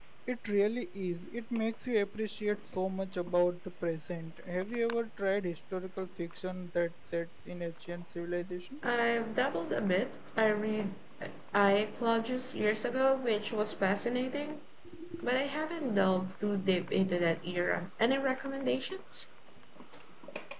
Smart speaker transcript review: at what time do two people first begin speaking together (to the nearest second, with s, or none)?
none